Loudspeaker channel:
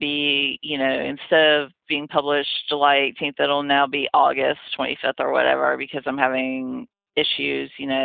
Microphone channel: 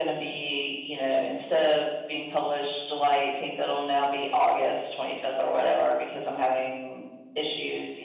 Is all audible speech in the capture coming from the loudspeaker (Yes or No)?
Yes